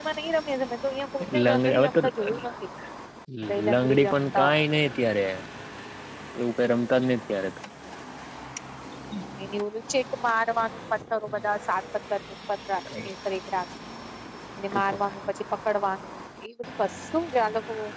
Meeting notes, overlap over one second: present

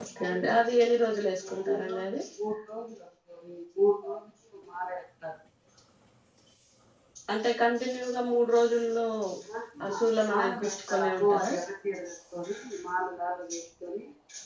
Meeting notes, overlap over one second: present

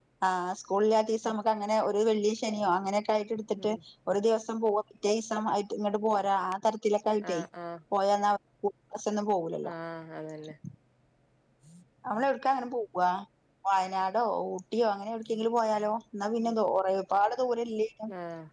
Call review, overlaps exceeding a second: none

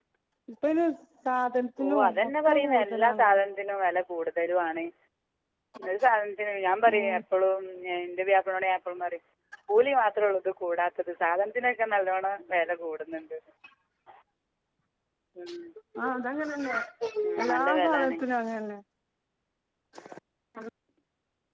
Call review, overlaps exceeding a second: present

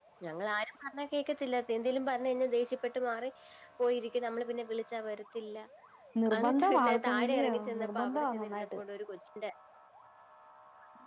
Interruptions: present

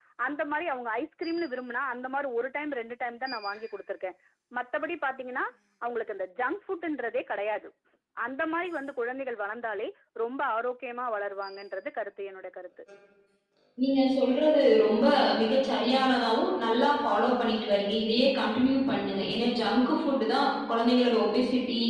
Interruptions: none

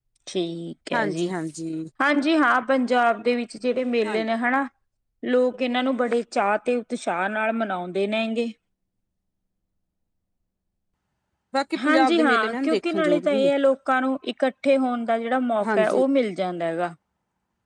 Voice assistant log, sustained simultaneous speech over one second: present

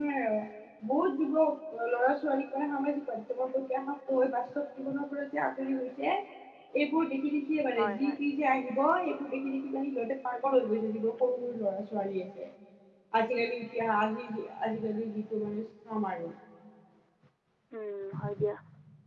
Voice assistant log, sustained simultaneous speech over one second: none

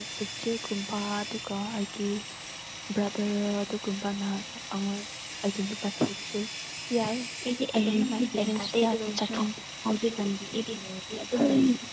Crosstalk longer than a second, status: present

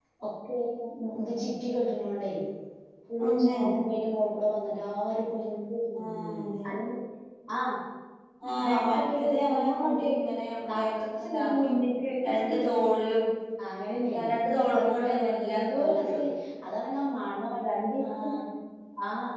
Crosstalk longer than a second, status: present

